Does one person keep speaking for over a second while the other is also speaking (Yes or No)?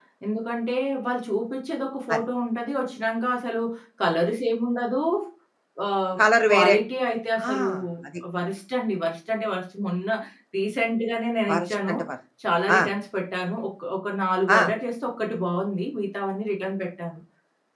No